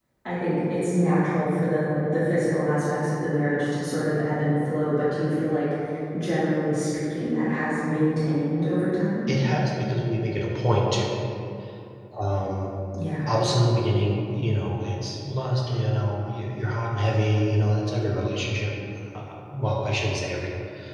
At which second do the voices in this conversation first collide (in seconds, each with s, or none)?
none